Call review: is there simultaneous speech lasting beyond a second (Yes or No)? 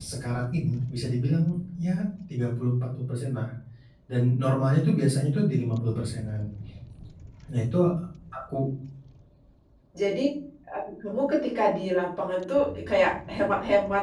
No